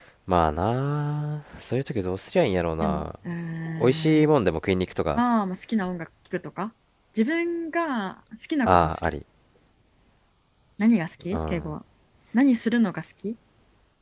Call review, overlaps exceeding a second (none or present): none